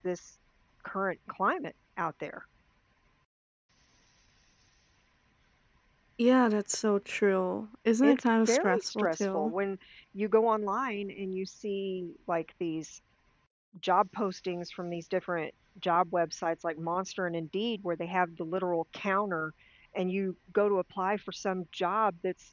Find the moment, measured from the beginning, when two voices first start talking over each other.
8.0 s

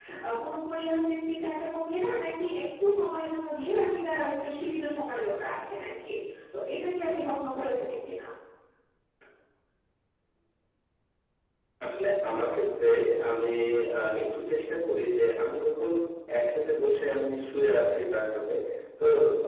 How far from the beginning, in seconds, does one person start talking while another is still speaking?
none

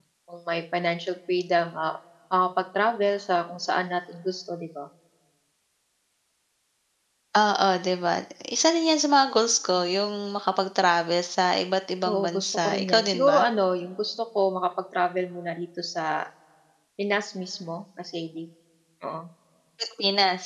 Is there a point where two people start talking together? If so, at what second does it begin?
12.0 s

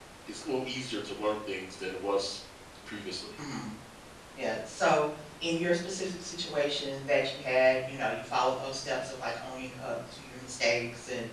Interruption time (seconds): none

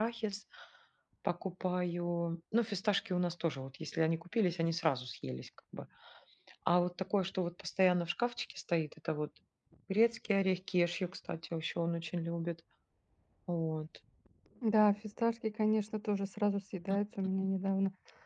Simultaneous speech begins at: none

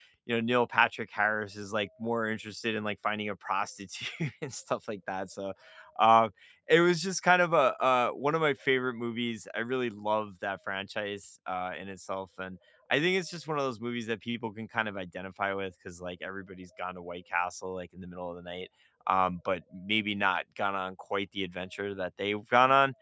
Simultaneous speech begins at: none

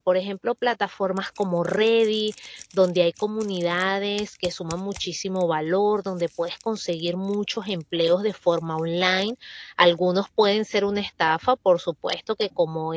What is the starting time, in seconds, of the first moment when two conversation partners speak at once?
none

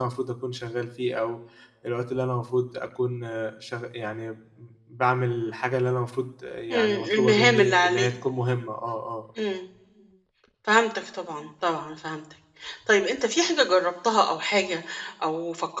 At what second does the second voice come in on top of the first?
6.7 s

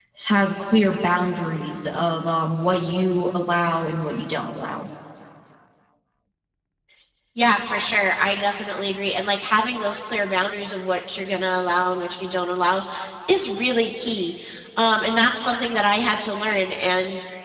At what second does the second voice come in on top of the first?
none

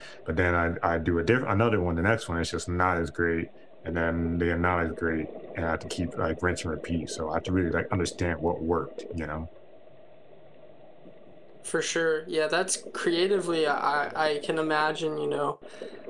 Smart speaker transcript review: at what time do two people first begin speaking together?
none

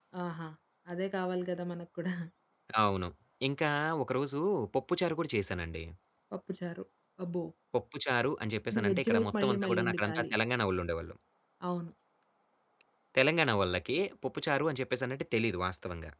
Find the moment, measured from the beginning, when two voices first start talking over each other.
8.7 s

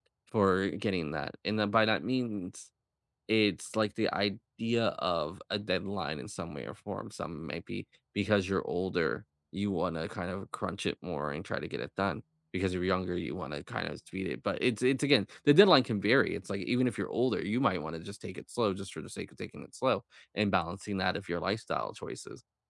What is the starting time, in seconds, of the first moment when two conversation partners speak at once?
none

